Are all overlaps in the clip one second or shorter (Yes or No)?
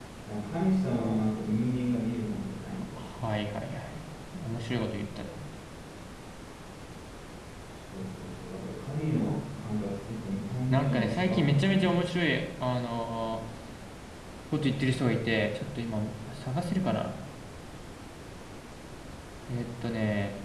No